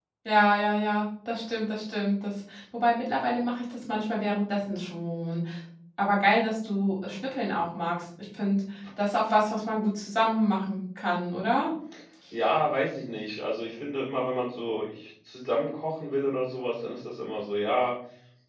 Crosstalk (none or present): none